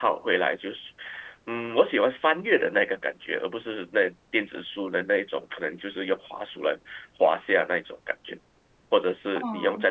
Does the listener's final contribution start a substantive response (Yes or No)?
No